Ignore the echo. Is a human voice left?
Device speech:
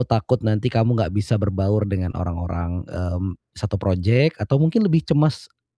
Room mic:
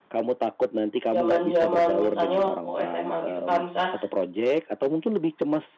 Yes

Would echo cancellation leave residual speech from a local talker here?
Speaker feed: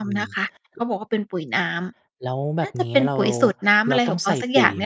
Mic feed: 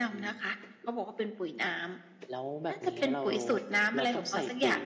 No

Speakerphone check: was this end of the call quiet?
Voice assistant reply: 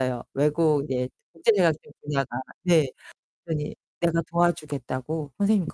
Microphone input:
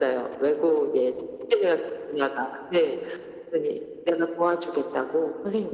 Yes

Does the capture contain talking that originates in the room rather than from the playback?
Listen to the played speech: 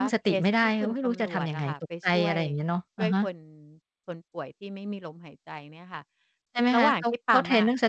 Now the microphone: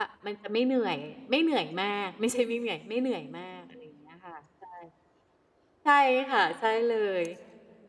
Yes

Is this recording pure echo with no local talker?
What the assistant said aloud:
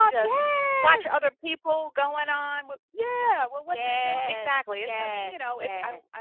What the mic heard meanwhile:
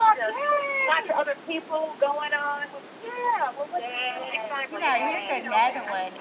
No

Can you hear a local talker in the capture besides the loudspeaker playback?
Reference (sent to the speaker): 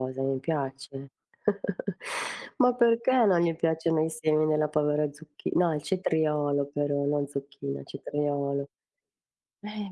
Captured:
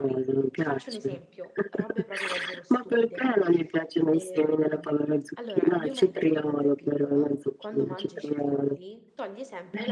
Yes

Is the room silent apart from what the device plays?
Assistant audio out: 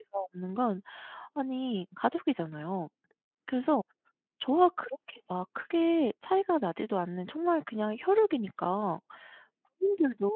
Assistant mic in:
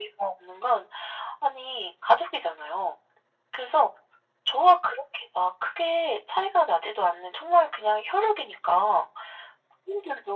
Yes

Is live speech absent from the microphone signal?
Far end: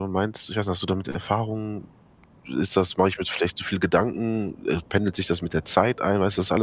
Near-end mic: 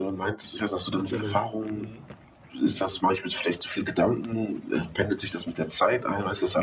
No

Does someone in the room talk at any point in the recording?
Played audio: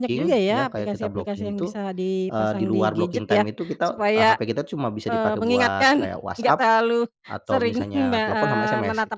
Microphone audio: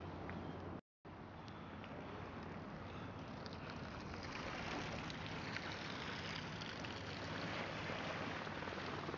No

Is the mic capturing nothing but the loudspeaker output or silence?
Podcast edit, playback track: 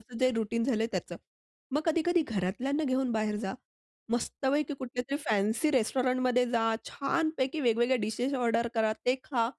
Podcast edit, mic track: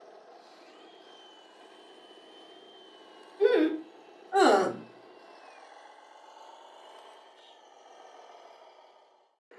No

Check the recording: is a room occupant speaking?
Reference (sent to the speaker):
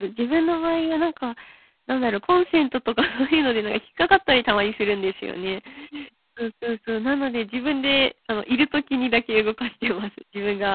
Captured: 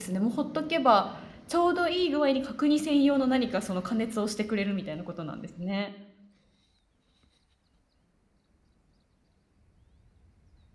Yes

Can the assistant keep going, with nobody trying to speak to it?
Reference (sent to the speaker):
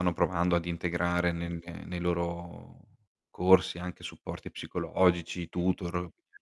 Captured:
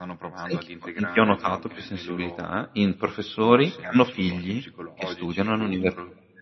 No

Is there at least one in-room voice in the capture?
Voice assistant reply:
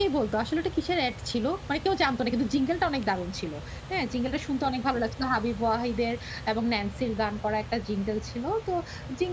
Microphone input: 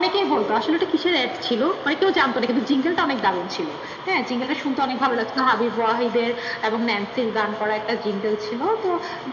No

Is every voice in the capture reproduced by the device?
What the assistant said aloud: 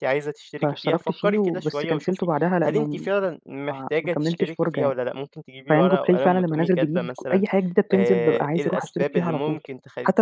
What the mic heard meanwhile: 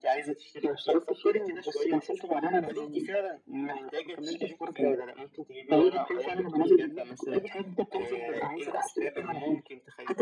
Yes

